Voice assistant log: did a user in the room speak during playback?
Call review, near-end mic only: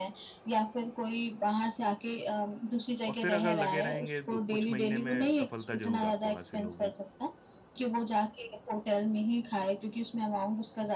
Yes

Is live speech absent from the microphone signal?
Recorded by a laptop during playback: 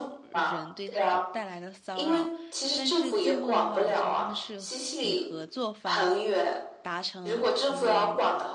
No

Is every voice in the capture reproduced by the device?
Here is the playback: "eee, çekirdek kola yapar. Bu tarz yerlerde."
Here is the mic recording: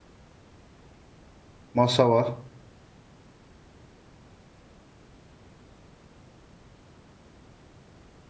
No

